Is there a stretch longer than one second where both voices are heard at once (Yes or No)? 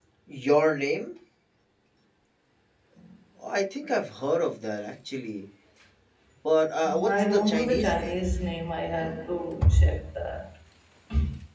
Yes